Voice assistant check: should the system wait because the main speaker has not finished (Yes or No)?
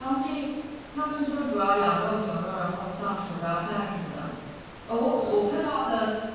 Yes